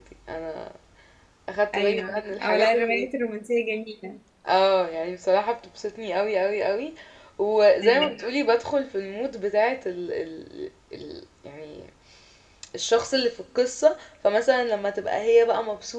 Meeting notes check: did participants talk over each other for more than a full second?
Yes, from 1.8 s

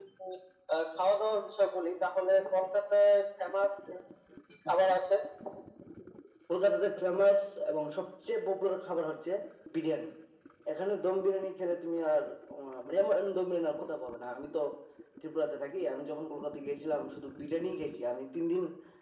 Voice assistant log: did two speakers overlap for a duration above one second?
No

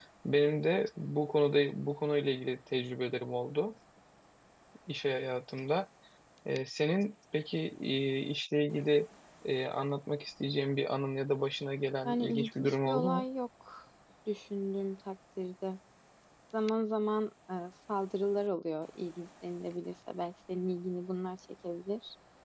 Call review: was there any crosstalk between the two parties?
Yes, from 12.0 s

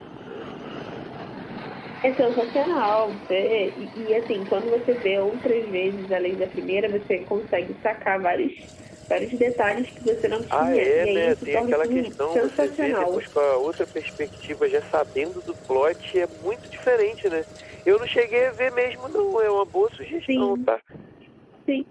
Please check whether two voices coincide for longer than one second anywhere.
Yes, from 10.5 s

